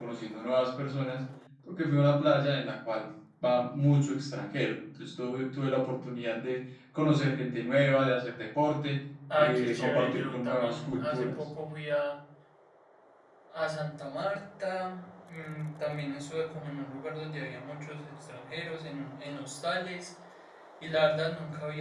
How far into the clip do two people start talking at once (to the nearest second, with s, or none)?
9 s